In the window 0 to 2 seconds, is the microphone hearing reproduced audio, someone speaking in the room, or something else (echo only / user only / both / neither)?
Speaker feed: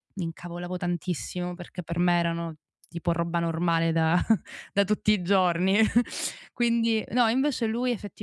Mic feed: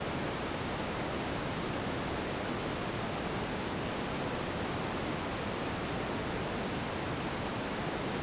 neither